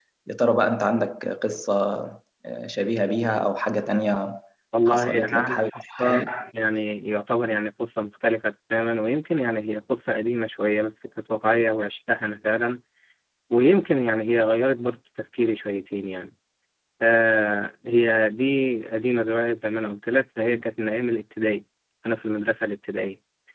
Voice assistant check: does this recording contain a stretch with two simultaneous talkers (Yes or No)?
Yes